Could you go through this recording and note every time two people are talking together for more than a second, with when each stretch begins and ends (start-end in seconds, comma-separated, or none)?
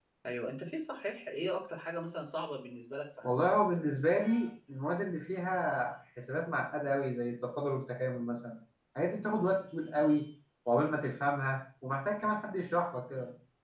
none